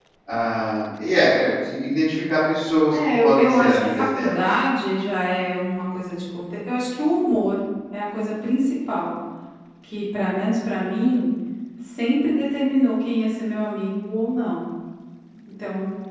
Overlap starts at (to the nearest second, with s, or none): 3 s